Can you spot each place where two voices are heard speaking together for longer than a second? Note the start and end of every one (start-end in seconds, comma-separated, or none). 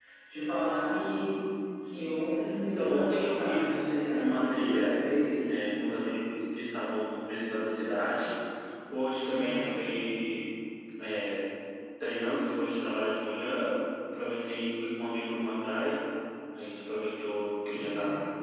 2.7-5.0